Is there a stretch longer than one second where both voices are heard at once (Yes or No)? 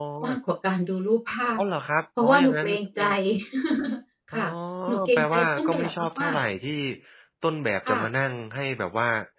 Yes